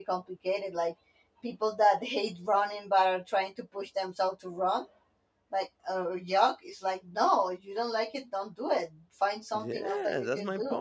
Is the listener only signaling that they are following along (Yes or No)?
No